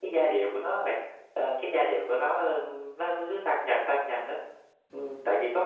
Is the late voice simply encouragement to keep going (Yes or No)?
No